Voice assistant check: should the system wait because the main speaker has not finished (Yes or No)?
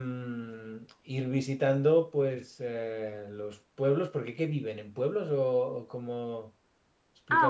No